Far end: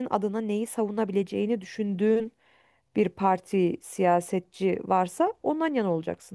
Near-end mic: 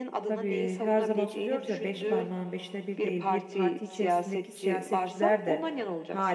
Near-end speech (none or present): present